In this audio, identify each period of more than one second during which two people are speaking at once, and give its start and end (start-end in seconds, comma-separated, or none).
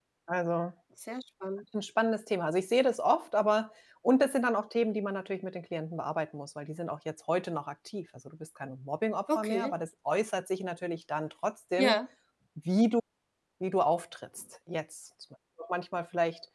none